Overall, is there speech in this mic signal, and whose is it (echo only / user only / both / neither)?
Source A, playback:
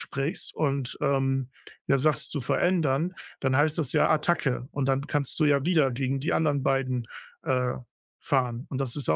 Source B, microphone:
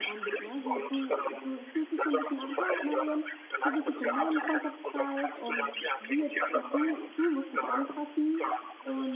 both